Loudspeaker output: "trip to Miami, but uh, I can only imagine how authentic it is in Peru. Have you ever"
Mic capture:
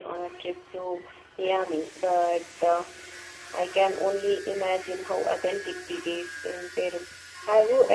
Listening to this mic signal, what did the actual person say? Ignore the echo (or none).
none